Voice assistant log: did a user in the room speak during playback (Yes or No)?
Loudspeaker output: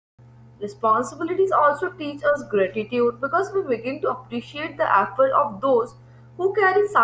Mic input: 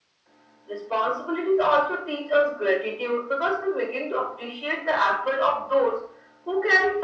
No